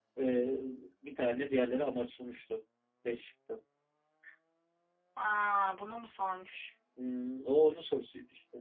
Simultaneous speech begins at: none

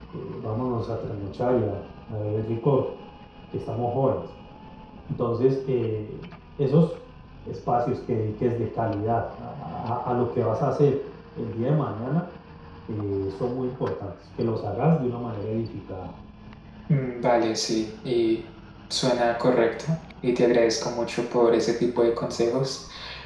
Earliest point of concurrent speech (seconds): none

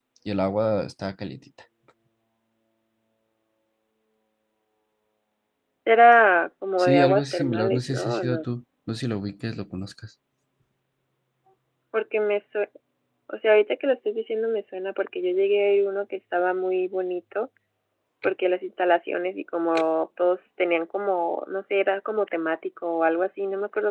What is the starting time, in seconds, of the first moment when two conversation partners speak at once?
6.8 s

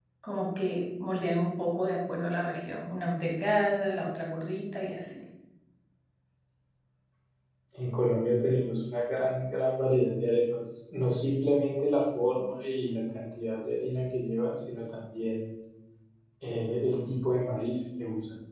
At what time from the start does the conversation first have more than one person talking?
none

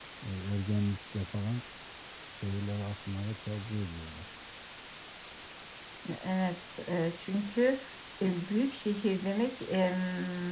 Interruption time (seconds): none

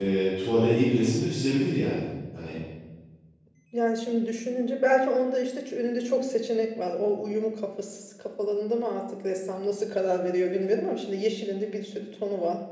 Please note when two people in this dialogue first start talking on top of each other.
none

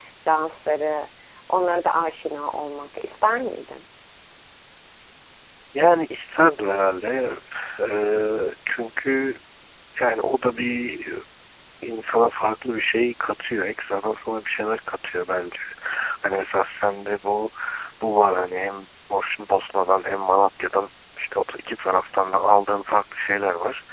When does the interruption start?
none

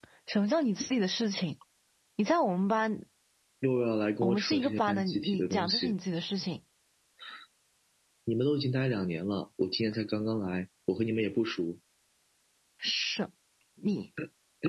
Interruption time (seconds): 4.2 s

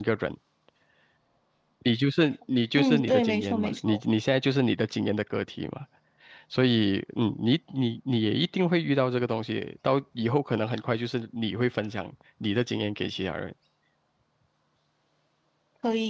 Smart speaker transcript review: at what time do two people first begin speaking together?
2.7 s

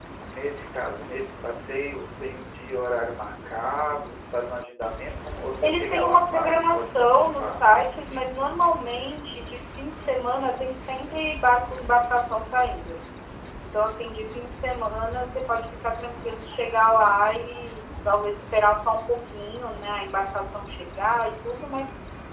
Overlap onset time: 5.6 s

